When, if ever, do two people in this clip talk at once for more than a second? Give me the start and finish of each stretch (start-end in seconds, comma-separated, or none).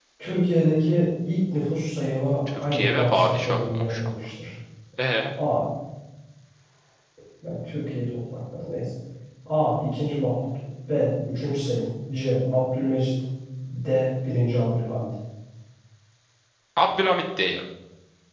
2.6-4.2